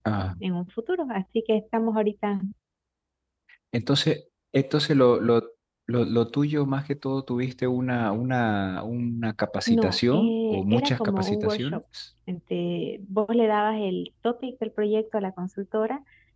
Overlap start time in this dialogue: 9.7 s

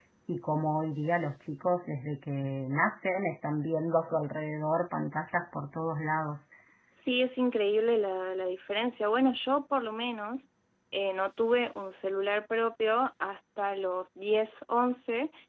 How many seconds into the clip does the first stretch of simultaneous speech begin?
none

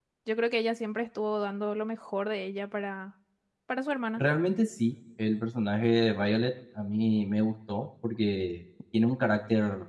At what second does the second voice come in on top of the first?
none

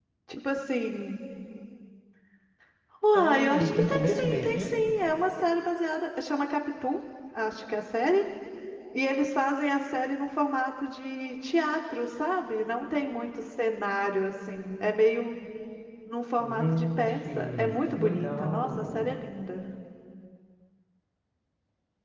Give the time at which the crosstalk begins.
3.1 s

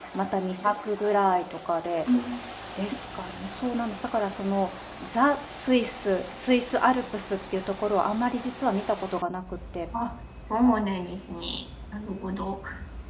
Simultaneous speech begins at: none

